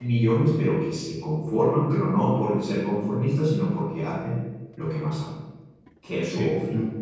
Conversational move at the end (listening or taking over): taking over